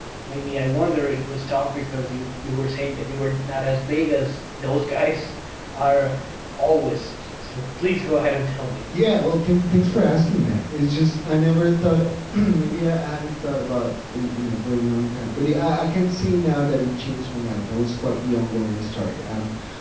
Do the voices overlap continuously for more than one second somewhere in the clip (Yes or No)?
No